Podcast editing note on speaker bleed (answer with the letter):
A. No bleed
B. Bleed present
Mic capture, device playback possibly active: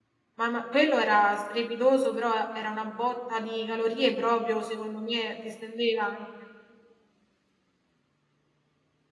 A